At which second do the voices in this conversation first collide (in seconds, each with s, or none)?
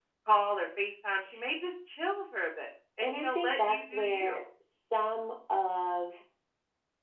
3.0 s